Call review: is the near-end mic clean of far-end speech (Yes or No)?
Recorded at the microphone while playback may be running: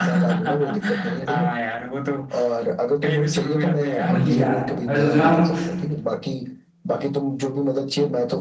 No